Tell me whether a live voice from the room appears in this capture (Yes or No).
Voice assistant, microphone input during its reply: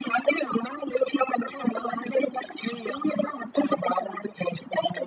No